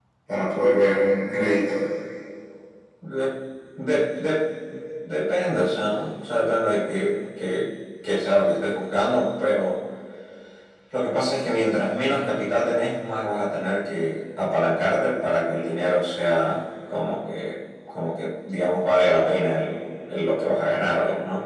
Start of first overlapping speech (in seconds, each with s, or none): none